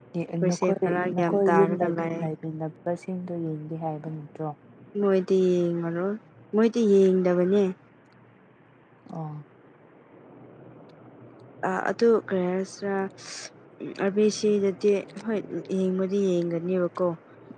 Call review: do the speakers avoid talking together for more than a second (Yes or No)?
No